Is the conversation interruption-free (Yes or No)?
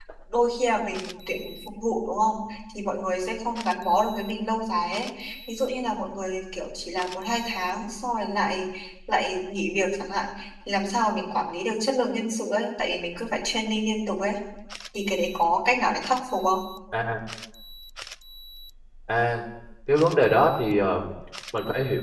Yes